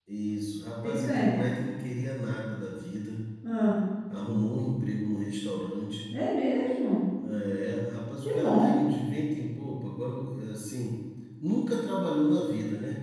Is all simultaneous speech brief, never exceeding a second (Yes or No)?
Yes